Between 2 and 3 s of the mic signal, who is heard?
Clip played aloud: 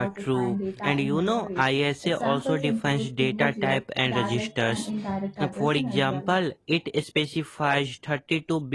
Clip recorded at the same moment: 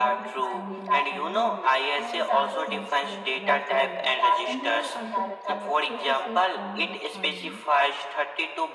both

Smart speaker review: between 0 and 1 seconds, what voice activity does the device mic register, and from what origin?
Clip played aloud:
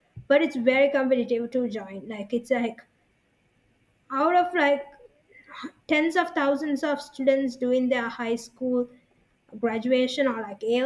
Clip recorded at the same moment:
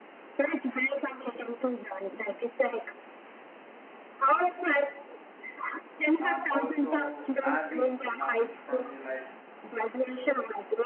echo only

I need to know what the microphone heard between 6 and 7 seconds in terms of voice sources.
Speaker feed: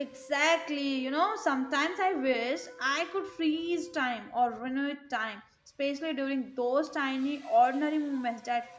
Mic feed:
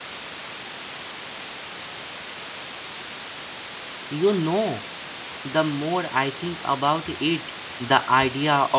user only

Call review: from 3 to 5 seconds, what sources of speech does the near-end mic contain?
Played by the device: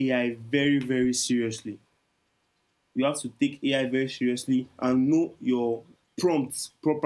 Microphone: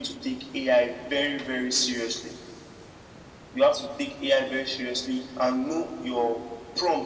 echo only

